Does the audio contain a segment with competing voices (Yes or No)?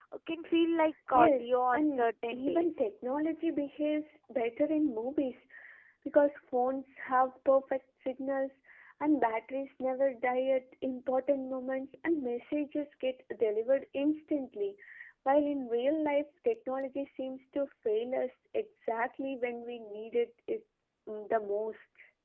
Yes